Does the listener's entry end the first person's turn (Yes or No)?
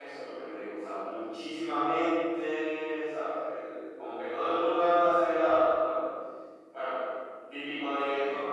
No